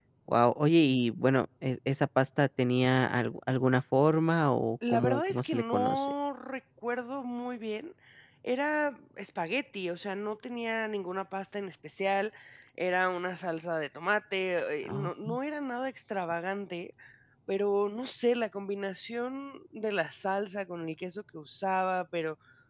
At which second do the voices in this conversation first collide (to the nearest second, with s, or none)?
5 s